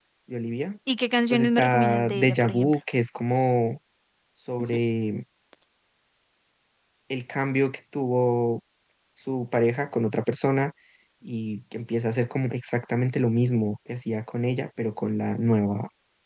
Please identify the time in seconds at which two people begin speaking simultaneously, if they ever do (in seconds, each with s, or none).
1.3 s